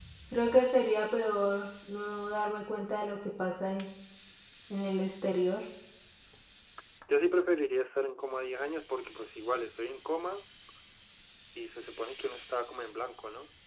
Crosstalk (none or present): none